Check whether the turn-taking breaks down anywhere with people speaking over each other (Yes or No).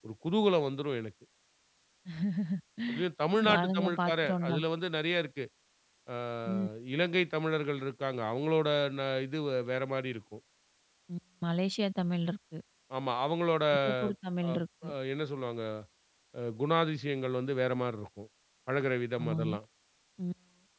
Yes